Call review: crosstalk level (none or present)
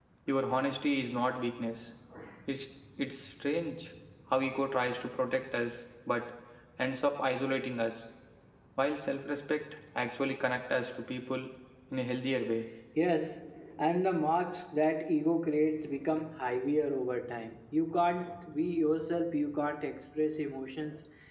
none